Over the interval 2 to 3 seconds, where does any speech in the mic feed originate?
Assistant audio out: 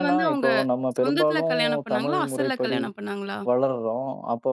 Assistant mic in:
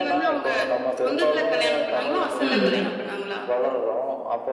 both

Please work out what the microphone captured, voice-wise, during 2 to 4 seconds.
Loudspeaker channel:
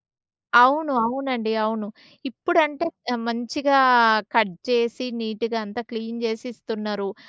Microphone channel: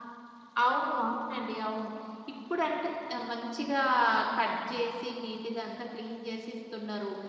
echo only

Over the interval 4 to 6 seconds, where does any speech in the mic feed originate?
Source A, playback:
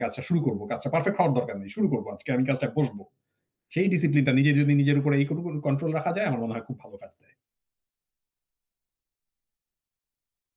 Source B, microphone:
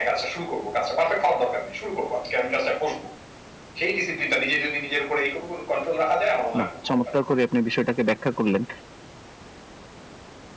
echo only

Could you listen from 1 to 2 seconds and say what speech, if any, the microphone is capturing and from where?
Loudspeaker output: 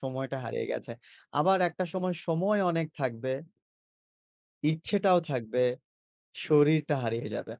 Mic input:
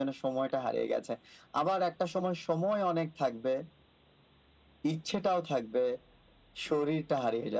echo only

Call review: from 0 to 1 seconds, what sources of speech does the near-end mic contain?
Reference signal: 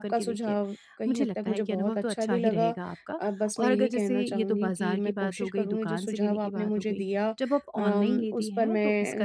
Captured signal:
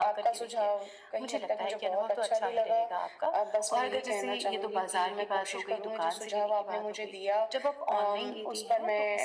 echo only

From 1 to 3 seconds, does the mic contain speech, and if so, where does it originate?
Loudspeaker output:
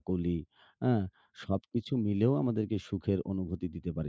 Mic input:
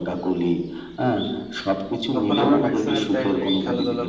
both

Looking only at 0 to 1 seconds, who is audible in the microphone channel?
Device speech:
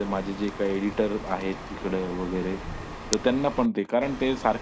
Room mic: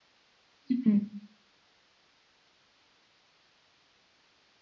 user only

